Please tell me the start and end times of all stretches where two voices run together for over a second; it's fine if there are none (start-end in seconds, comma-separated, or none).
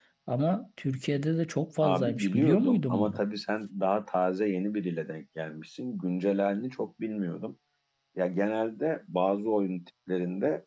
1.8-3.2